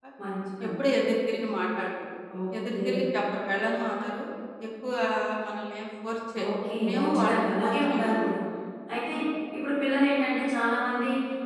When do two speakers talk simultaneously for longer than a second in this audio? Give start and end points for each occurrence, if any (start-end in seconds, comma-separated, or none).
6.9-8.4